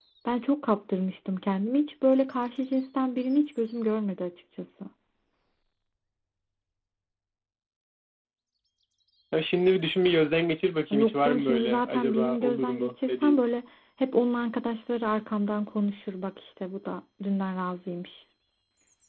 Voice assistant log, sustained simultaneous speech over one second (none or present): present